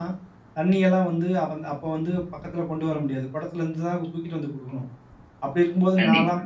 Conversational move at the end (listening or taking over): listening